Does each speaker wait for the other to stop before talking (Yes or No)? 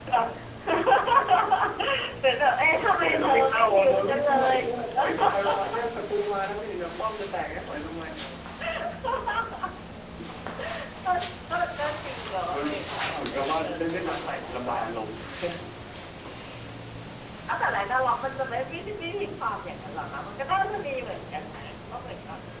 No